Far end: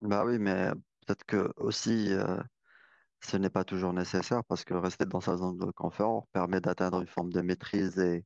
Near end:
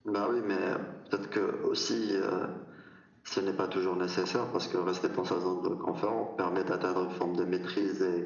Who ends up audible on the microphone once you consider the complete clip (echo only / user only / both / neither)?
echo only